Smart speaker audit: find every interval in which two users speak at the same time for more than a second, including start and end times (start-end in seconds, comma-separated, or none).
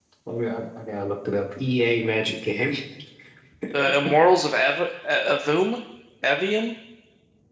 none